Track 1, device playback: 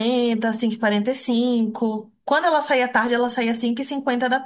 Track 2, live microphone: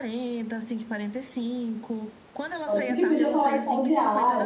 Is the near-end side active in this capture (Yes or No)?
Yes